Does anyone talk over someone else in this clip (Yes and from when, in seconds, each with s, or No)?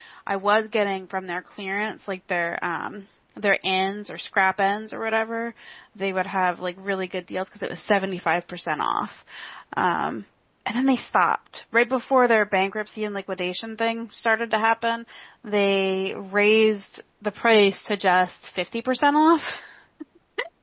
No